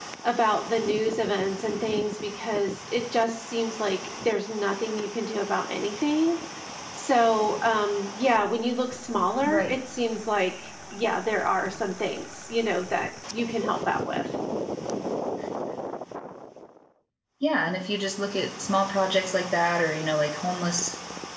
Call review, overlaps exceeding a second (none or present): none